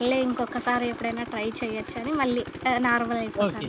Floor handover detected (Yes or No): Yes